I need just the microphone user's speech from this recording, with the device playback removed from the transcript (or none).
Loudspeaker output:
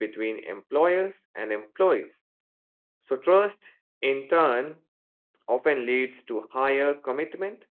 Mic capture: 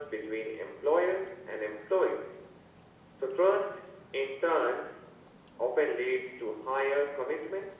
none